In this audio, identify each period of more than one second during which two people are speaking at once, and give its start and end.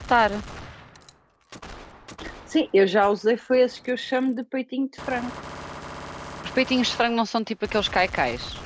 none

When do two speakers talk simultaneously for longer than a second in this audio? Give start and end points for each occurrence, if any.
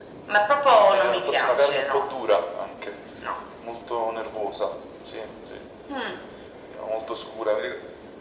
0.8-2.0

